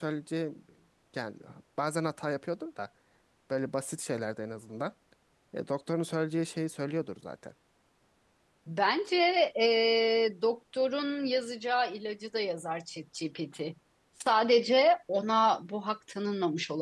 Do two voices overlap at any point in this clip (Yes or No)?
No